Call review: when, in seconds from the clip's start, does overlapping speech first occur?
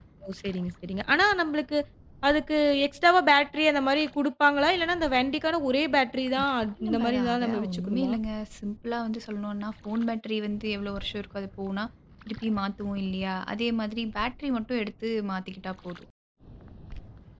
6.9 s

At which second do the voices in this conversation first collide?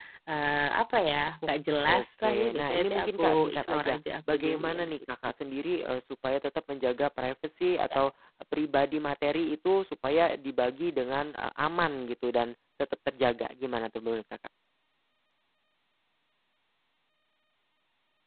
1.8 s

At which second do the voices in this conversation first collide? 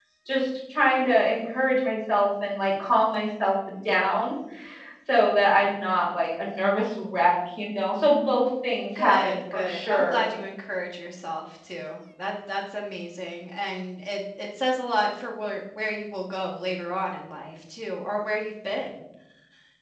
8.9 s

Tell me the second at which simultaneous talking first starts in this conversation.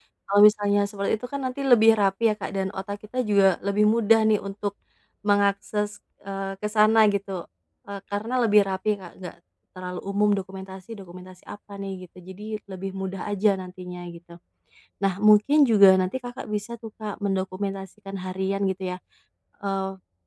none

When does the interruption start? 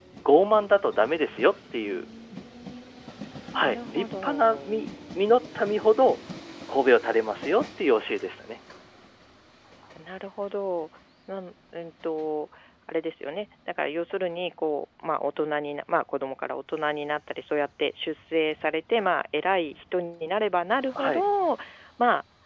3.6 s

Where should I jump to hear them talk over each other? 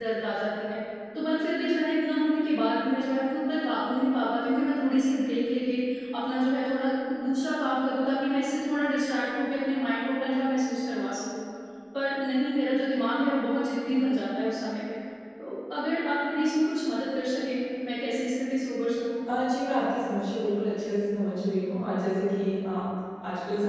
none

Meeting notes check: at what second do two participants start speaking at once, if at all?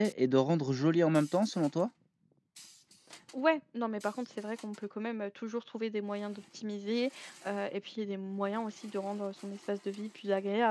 none

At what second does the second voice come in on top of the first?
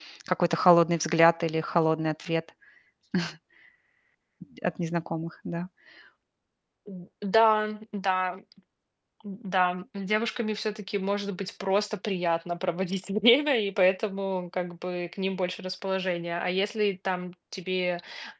none

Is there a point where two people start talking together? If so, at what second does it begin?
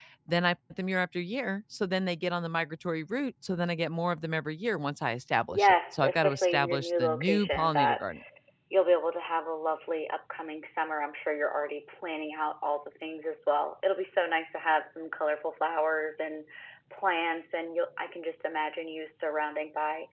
5.5 s

